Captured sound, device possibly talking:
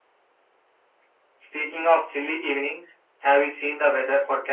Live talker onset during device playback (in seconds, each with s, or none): none